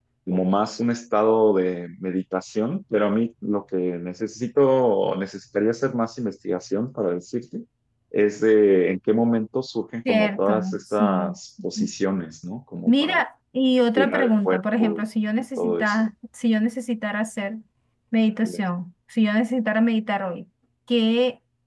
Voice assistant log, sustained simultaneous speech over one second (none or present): present